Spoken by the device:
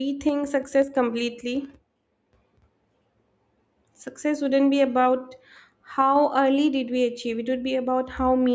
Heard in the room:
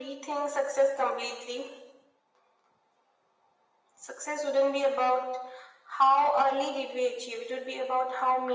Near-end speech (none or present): none